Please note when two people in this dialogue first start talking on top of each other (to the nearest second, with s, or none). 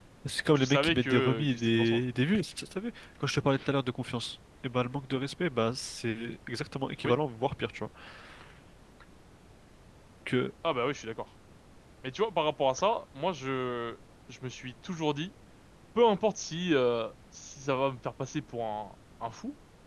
1 s